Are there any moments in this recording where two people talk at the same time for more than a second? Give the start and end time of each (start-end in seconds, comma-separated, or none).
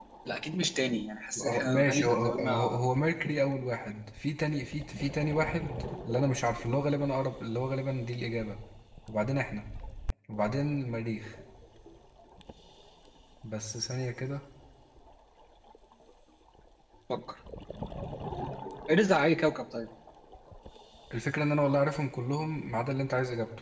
1.4-2.8